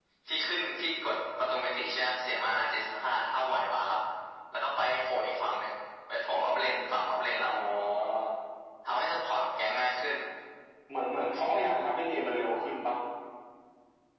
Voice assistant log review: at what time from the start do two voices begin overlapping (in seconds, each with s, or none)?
none